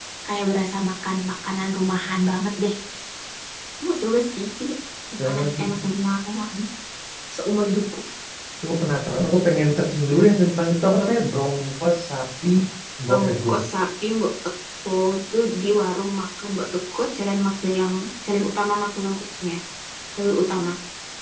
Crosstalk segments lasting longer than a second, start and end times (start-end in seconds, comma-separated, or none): none